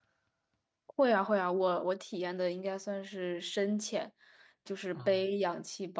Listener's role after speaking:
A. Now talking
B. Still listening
B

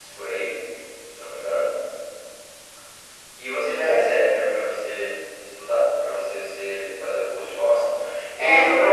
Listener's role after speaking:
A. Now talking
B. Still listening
A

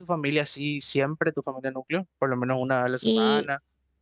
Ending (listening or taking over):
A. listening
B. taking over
B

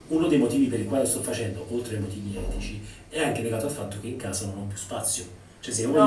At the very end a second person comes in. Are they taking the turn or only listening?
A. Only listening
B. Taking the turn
B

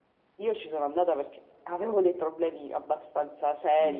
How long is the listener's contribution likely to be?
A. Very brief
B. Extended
B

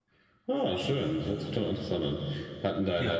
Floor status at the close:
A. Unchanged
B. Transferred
A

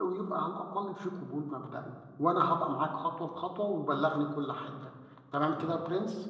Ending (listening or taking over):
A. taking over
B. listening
A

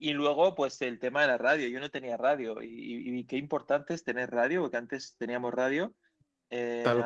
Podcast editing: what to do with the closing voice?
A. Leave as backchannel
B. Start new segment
A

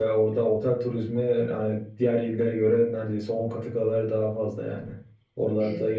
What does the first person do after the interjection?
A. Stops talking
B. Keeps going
B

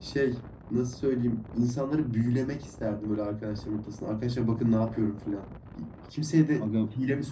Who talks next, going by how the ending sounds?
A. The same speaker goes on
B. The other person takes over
A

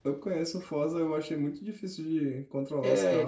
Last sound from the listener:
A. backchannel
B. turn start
B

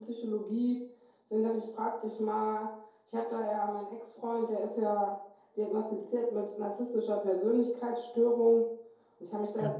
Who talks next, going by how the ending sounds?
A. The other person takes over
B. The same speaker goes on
B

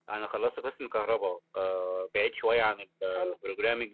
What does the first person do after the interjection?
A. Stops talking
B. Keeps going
B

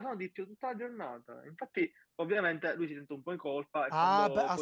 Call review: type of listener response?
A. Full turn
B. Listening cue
A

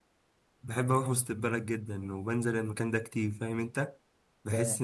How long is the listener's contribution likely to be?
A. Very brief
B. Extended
A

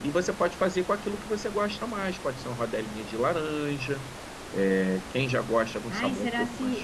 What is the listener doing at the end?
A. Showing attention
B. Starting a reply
B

